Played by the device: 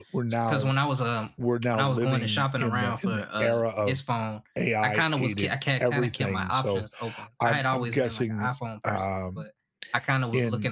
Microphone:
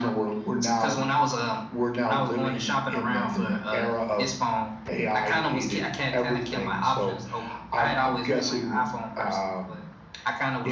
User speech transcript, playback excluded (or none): none